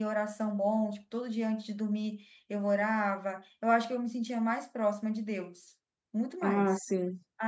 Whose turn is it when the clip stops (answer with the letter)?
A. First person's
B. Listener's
A